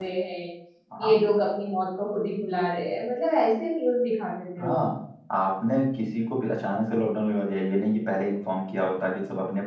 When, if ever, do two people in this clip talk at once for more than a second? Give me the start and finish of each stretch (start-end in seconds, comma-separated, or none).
none